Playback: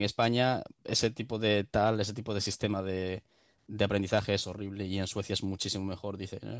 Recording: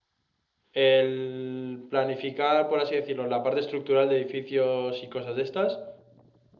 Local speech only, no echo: El planificar, por así decirlo, la parte estructural de edificios y cosas de estas,

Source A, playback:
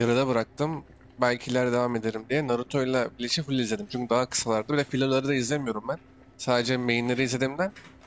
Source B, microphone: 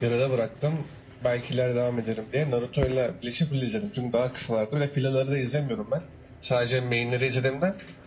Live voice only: none

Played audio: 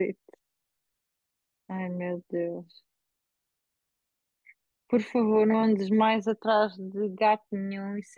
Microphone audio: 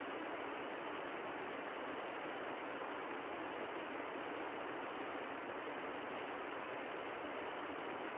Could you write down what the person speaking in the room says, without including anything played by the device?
none

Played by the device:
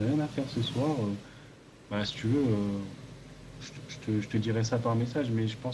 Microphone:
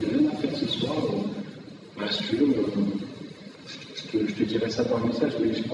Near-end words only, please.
none

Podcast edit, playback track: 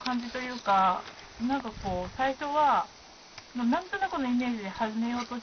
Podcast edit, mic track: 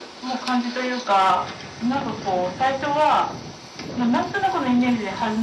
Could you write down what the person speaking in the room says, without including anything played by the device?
none

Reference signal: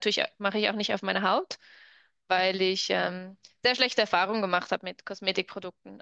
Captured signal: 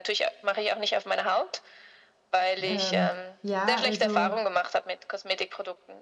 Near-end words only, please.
Ähm, ja, also

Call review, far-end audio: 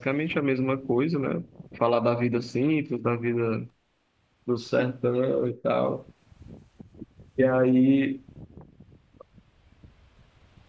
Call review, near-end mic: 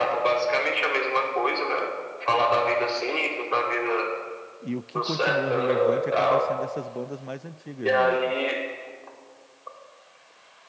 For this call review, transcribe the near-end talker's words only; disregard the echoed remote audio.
e o que continua relevante acaba sendo essas bandas mais antigas mesmo.

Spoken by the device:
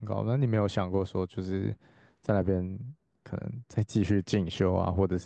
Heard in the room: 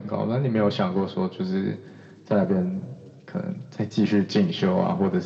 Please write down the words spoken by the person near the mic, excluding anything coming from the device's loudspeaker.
none

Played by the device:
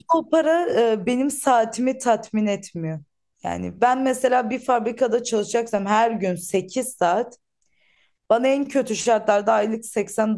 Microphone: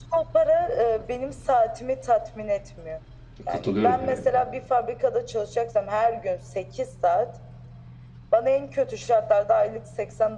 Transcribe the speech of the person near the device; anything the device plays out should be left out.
katılıyorum yani.

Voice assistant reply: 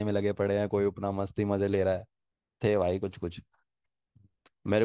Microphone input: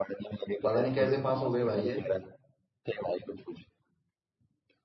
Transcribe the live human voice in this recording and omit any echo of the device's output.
पता नहीं कैसे पास हो गए भाई ये

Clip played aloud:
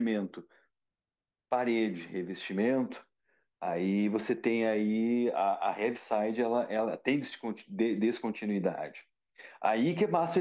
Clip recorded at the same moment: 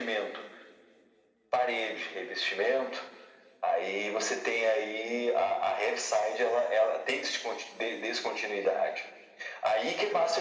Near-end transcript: none

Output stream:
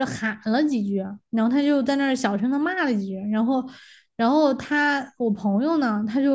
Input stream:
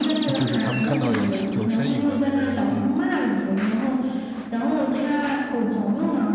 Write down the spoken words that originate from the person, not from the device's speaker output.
就是他们看到有有身影的那个人，嗯

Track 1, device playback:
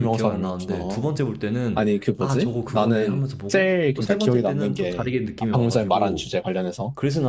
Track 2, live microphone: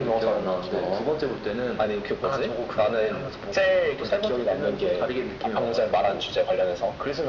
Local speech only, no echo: none

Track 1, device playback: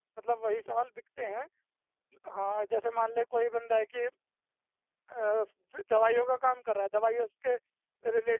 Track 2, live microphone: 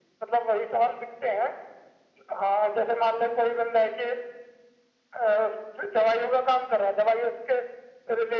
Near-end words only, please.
none

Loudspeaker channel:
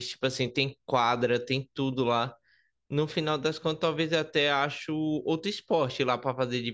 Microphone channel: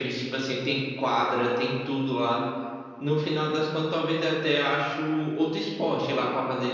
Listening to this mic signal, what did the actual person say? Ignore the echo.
none

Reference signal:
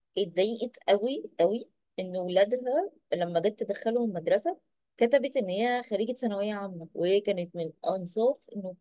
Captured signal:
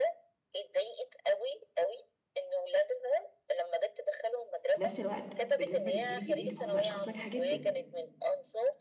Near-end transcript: وفي نفس الوقت بالنسبه للجيل الجديد فهم اشخاص ناجحه جدا

